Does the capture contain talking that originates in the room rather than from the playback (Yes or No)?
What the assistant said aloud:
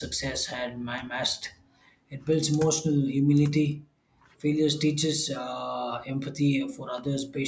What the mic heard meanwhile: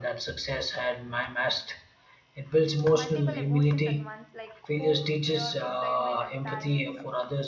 Yes